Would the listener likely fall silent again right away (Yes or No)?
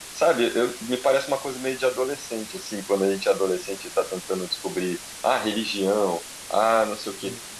Yes